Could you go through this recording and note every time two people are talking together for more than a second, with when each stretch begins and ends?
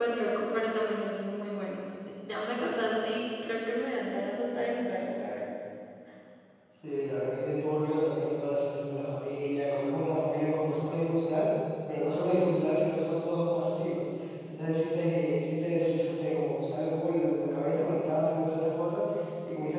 none

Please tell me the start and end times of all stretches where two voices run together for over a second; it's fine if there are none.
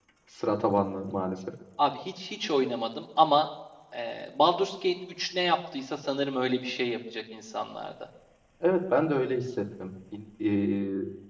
none

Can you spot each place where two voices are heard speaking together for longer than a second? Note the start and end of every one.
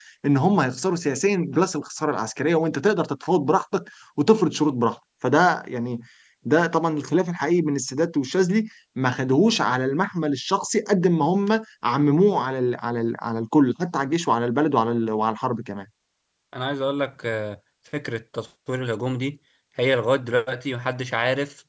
none

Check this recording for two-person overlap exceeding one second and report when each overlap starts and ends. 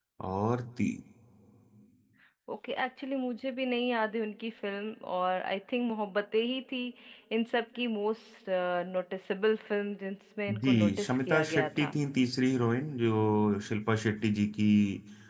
10.6-11.9

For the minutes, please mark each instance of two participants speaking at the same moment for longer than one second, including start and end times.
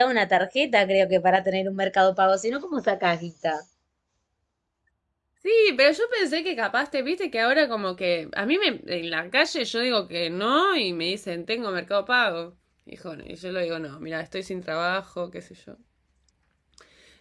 none

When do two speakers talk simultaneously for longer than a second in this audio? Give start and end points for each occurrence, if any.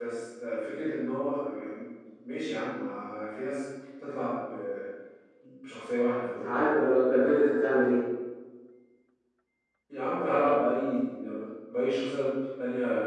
none

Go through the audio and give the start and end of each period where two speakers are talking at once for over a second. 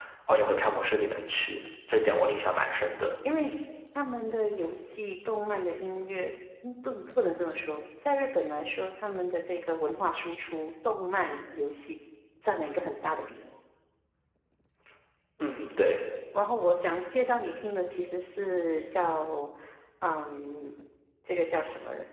none

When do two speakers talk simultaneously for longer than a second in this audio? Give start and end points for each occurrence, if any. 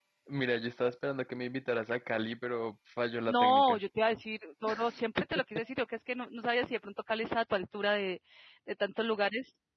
none

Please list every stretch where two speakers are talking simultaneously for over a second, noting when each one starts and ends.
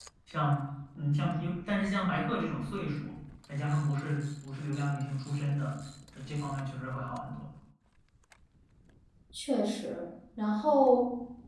none

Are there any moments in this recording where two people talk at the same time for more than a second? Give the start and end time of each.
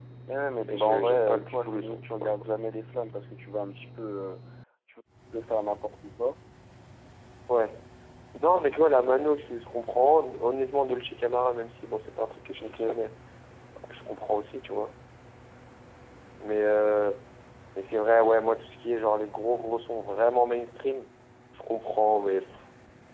0.7-2.5

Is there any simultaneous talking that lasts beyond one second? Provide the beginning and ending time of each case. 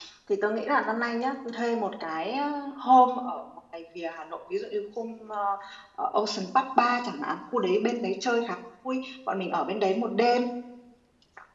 none

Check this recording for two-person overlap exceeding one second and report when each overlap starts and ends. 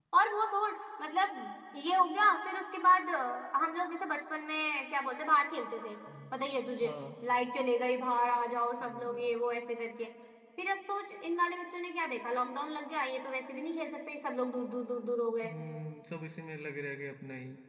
none

